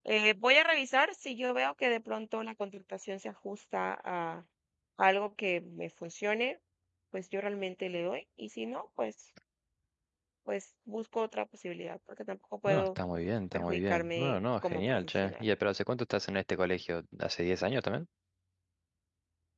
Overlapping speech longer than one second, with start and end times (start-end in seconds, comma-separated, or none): 13.5-15.4